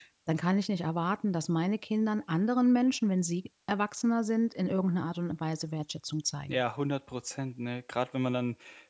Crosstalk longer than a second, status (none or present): none